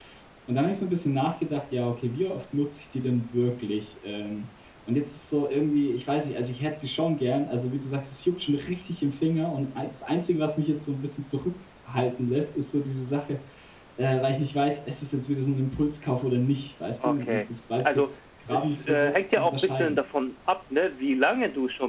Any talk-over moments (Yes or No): Yes